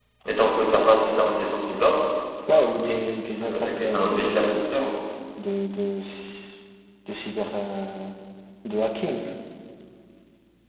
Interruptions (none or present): present